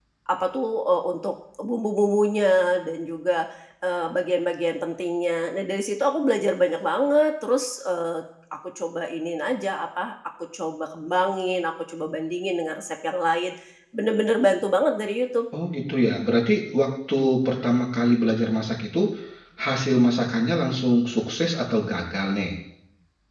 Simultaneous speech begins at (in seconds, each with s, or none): none